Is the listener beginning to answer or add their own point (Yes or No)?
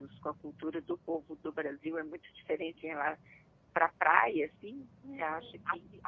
Yes